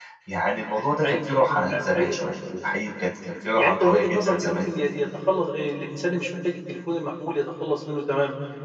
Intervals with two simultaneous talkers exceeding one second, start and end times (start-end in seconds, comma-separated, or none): 3.4-4.7